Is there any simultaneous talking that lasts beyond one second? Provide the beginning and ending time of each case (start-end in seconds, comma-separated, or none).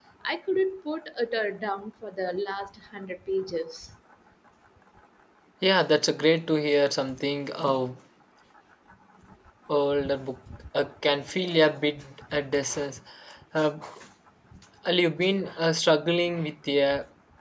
none